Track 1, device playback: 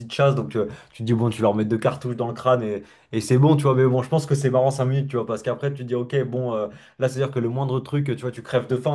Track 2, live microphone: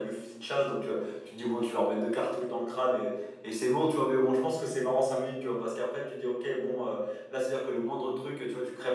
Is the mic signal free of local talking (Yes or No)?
Yes